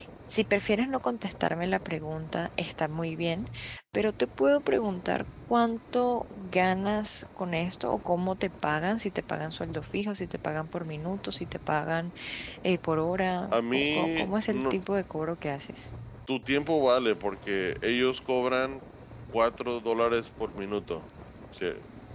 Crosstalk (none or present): present